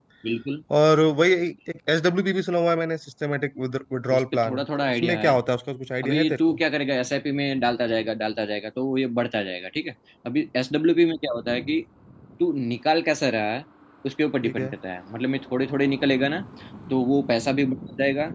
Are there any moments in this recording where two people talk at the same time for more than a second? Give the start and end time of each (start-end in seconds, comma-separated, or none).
4.1-5.4